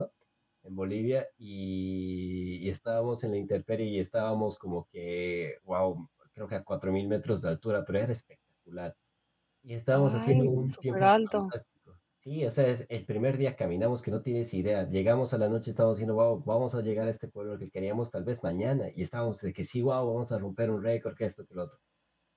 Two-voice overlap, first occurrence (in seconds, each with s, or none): 9.9 s